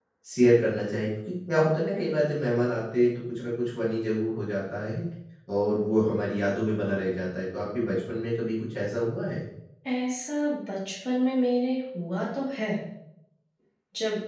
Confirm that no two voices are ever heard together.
Yes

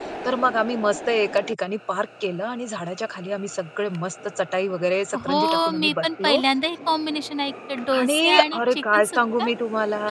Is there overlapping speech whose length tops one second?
Yes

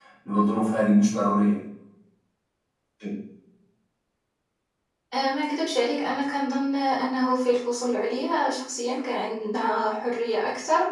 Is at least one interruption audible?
No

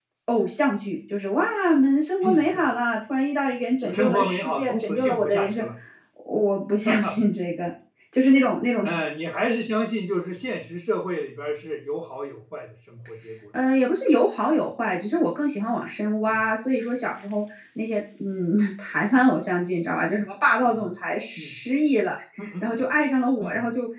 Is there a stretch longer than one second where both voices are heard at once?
Yes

